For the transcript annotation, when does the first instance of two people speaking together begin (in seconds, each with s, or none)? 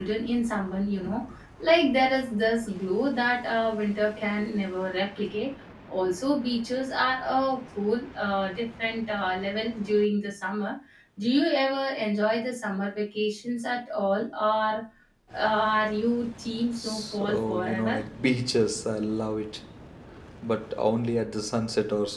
16.8 s